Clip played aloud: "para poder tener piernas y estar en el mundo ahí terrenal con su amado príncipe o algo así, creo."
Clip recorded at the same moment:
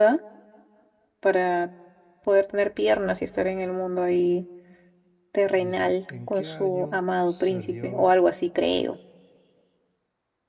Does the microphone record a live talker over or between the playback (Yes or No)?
Yes